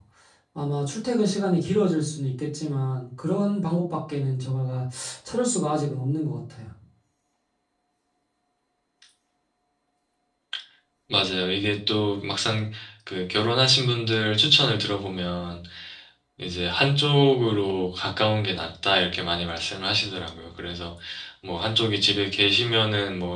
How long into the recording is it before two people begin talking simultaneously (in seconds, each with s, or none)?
none